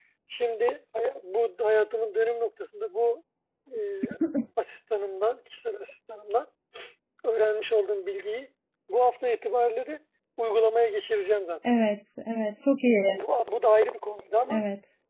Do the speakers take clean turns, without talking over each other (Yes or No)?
Yes